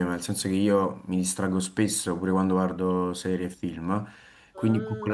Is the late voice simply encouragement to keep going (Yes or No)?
Yes